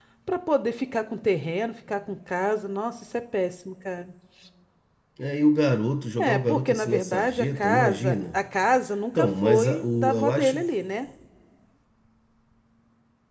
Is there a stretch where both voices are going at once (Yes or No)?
Yes